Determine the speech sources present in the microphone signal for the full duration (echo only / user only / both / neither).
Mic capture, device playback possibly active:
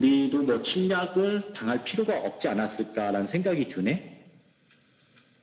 echo only